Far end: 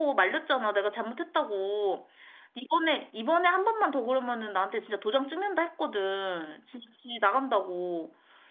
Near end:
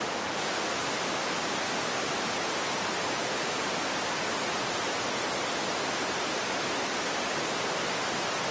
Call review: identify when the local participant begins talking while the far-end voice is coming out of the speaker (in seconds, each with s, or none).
none